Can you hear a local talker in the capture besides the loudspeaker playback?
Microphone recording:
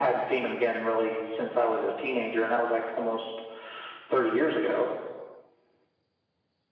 No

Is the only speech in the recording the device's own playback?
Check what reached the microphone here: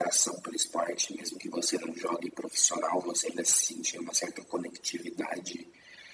Yes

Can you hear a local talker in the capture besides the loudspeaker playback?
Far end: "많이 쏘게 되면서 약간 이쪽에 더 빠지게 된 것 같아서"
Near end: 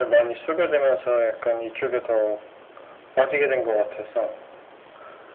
No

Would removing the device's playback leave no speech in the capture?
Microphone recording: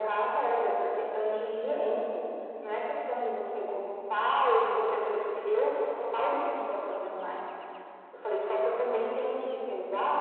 Yes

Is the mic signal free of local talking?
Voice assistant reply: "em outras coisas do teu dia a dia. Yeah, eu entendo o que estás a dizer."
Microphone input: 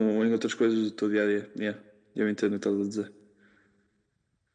Yes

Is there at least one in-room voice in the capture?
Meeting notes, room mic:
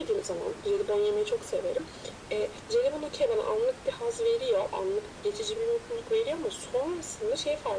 No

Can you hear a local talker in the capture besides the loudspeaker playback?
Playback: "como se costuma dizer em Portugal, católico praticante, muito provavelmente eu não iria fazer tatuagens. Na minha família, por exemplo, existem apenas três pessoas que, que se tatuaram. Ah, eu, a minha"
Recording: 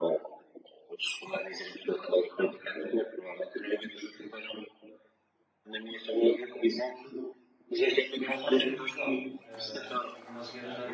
Yes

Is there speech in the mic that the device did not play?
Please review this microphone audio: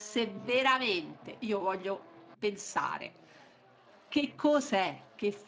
Yes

